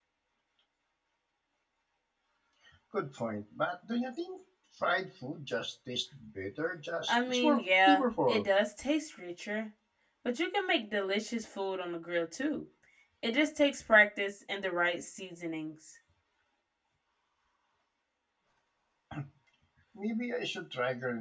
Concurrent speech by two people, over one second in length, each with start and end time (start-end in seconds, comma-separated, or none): 7.1-8.5